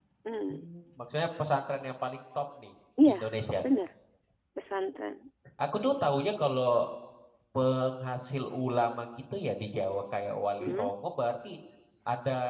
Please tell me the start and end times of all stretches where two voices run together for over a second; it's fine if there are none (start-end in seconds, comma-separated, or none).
none